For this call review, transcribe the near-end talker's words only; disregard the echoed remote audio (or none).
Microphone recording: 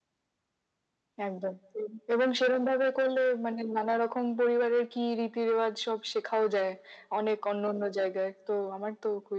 none